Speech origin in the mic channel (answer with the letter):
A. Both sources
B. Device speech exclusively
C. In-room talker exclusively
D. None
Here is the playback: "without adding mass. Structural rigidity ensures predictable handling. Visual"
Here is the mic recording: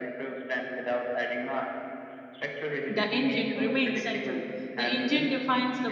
A